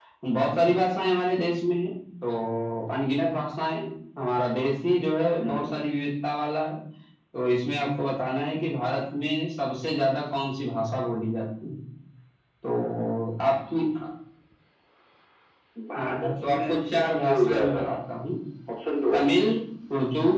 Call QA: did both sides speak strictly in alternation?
No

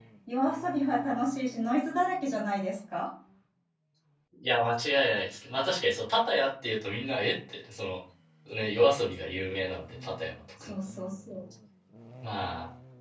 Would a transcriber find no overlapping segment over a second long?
Yes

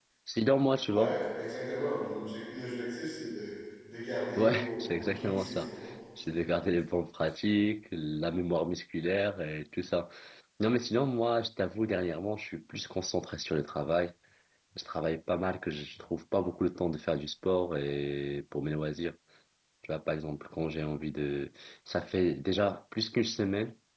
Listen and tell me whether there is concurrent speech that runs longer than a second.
Yes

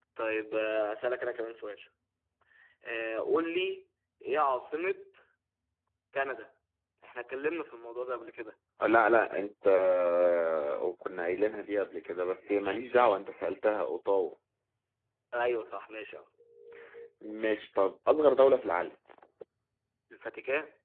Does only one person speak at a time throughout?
Yes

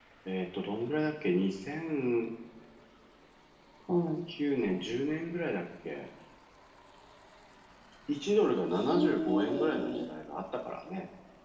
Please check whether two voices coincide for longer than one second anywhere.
Yes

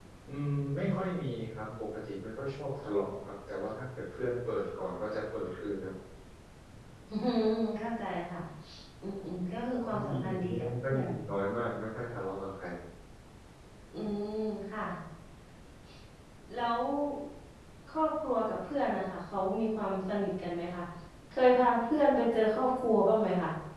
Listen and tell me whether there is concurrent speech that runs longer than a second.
Yes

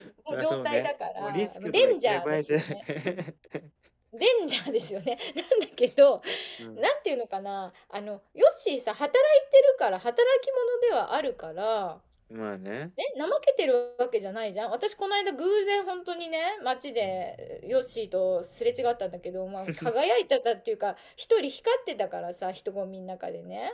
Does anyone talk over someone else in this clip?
Yes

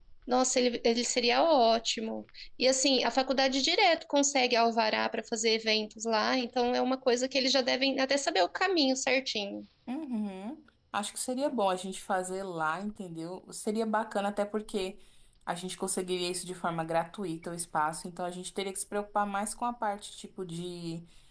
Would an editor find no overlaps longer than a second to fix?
Yes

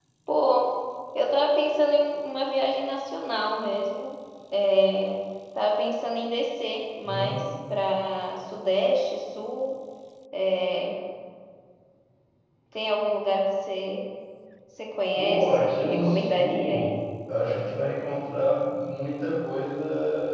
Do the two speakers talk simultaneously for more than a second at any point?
Yes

